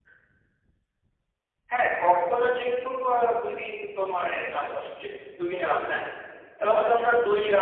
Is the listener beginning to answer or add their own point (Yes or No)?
No